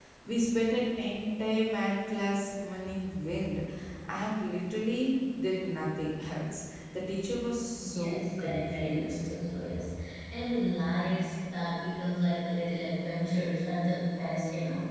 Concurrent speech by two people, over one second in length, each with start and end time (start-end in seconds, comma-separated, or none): 7.8-9.3